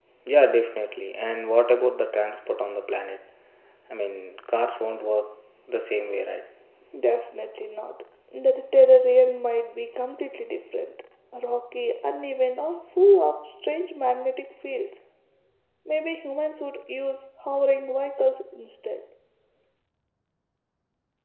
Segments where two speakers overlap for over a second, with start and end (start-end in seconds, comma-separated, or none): none